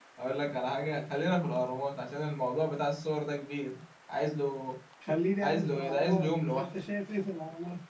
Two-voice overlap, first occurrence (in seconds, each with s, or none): 5.4 s